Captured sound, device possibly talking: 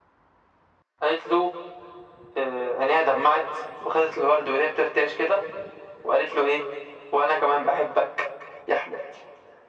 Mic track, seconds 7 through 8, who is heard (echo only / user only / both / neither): echo only